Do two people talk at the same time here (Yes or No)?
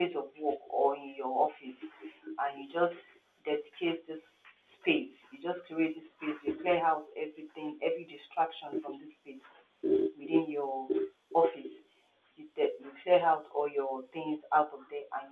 No